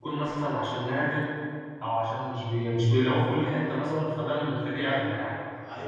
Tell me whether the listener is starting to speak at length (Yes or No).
Yes